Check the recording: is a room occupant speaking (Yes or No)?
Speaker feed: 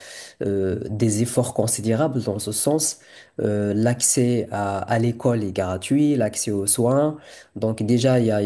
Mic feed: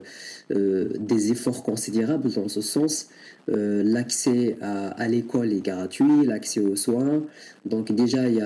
No